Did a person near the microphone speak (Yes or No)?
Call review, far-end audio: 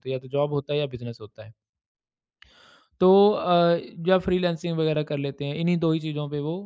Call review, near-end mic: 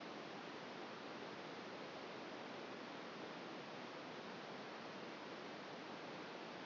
No